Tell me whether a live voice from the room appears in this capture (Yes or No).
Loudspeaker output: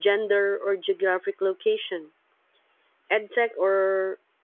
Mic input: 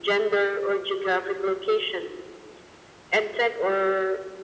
No